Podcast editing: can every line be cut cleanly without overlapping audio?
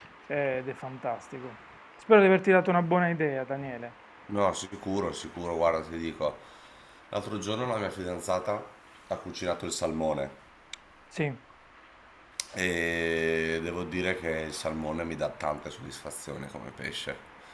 Yes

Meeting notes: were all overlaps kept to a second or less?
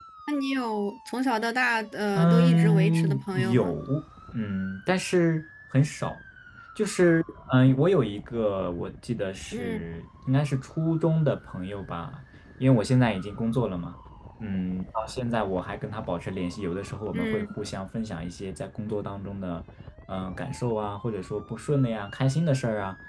No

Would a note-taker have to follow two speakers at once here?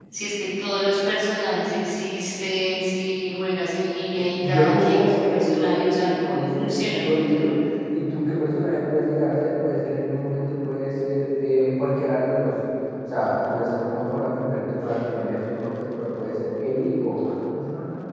Yes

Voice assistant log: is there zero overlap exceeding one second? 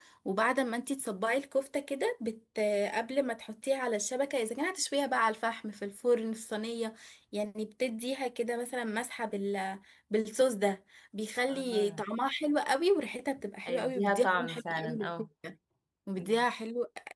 No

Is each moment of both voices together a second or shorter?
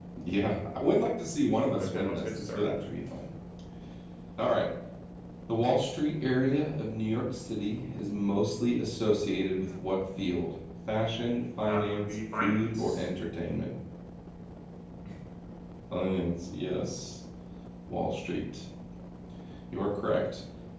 No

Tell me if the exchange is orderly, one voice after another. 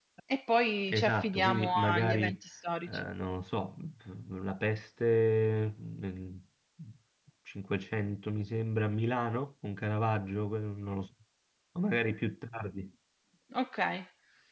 No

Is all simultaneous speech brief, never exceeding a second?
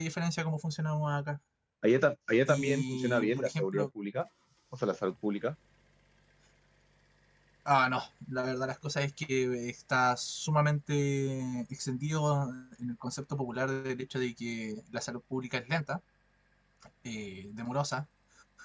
No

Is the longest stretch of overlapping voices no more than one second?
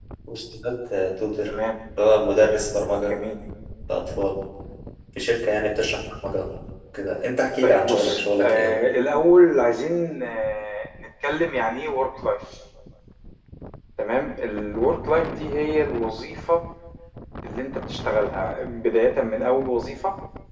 No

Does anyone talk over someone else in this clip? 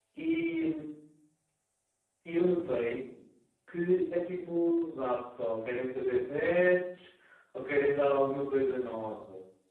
No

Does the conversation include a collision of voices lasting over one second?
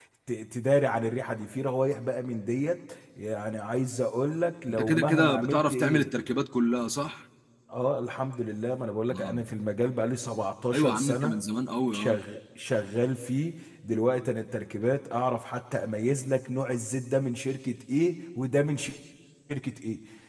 Yes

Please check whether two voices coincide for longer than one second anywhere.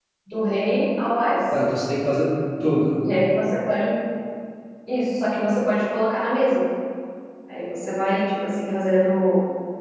No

